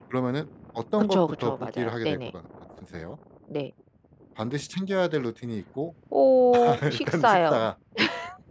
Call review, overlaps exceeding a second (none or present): present